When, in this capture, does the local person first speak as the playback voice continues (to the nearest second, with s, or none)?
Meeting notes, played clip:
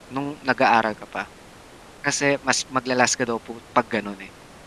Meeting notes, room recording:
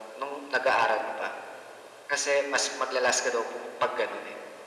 none